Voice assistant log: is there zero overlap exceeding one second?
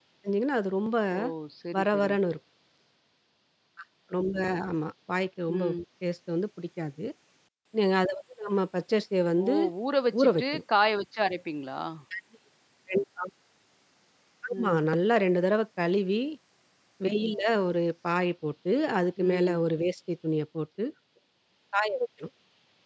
Yes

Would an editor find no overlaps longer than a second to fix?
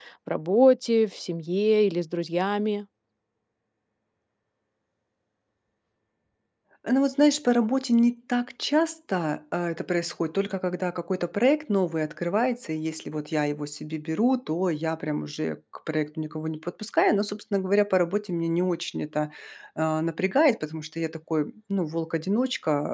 Yes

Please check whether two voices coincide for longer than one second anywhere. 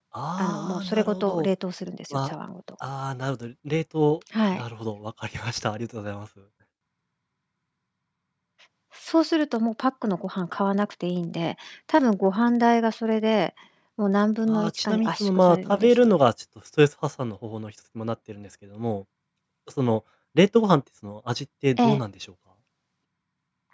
Yes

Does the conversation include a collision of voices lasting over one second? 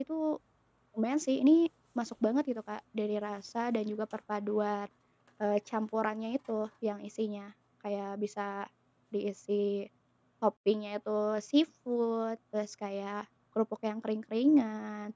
No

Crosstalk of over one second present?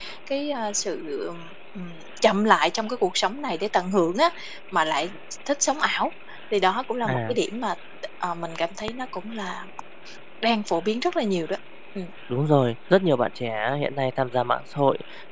No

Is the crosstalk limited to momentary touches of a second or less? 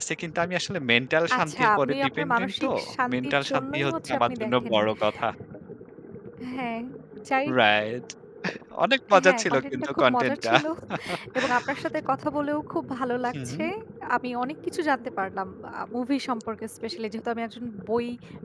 No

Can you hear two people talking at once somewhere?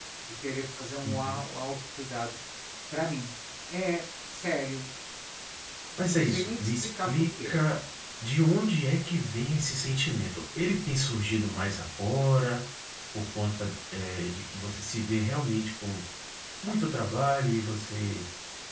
Yes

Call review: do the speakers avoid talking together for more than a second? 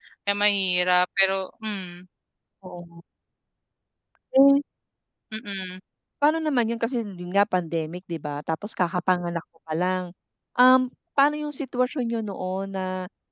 Yes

